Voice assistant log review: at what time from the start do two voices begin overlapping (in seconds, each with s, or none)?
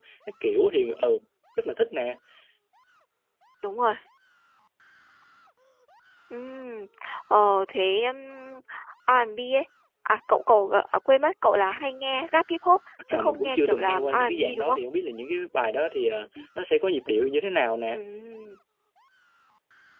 13.1 s